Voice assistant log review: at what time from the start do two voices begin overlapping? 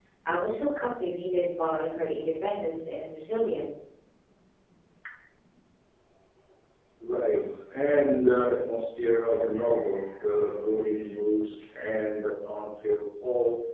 none

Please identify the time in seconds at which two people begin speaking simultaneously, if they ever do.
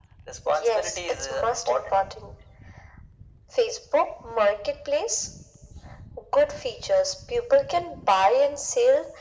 1 s

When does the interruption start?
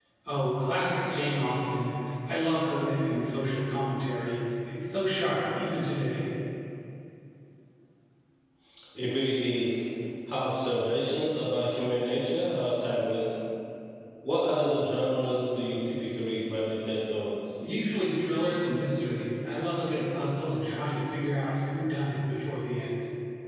none

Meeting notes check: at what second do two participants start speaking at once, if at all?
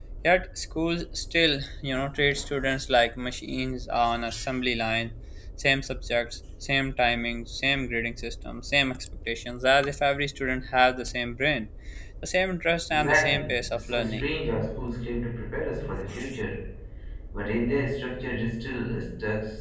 13 s

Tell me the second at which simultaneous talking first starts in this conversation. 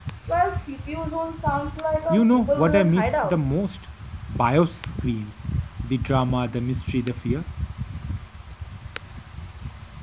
2 s

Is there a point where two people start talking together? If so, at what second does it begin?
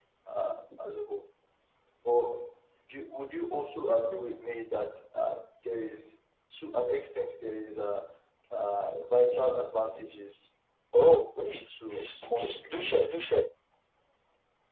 12 s

